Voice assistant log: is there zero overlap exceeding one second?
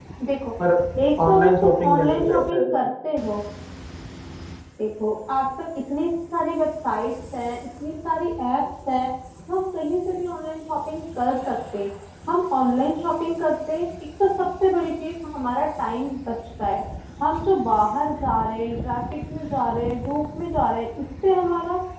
No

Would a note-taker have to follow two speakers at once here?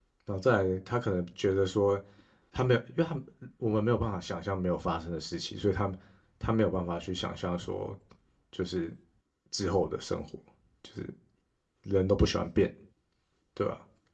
No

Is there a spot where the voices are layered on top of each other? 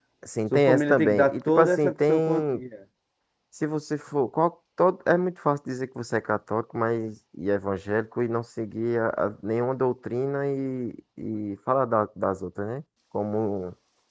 Yes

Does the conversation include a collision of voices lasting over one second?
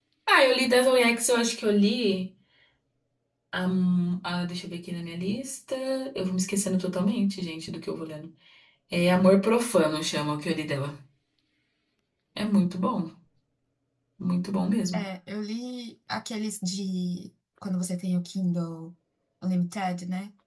No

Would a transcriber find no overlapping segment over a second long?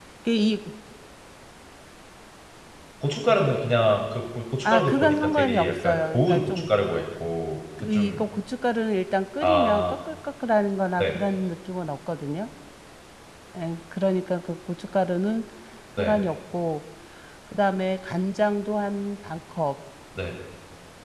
No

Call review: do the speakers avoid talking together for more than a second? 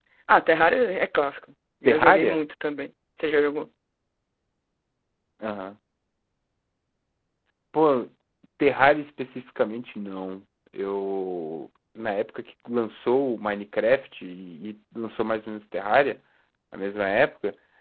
Yes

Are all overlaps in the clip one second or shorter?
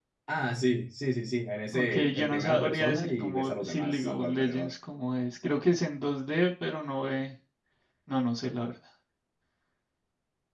No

